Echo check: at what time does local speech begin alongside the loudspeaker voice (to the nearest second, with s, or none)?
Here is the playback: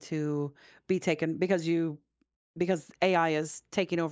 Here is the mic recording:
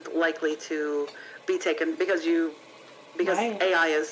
3 s